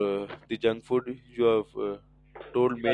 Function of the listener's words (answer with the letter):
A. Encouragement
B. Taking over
A